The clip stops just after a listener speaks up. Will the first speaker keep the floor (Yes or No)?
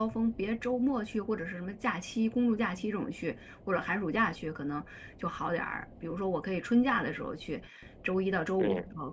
Yes